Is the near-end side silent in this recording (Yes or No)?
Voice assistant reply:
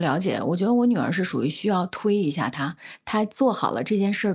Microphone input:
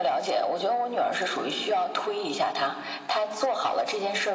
Yes